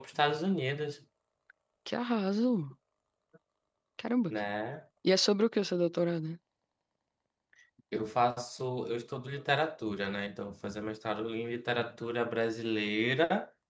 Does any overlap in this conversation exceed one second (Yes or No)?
No